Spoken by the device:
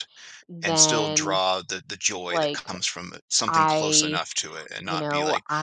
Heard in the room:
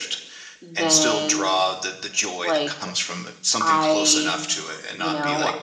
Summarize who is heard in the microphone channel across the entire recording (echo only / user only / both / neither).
echo only